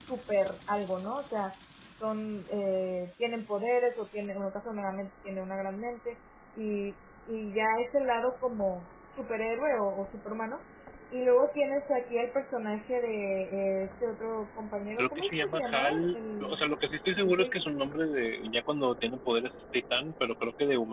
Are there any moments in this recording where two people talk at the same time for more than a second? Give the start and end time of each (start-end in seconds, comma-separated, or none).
15.0-16.6